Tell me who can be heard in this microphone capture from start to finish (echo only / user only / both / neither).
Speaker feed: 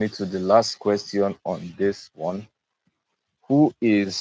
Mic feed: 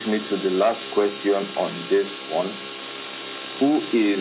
echo only